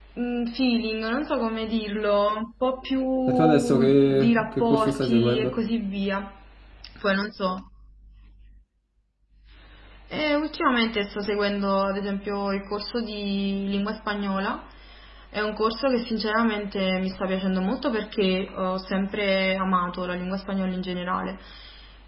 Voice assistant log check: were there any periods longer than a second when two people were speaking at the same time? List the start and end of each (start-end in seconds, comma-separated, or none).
3.3-5.5